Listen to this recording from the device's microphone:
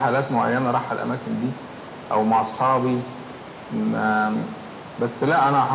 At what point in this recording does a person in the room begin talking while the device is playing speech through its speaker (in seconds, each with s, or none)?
none